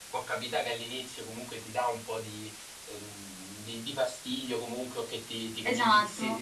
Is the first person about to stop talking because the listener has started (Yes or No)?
No